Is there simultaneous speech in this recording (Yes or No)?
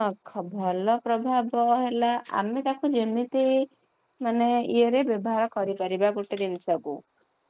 No